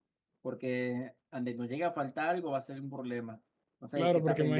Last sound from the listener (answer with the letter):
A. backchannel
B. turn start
B